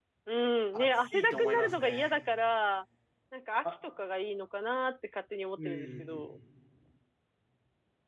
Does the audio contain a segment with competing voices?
Yes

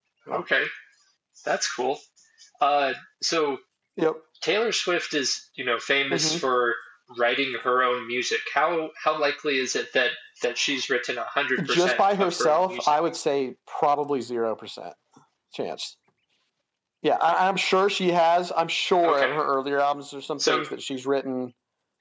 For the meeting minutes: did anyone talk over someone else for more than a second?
Yes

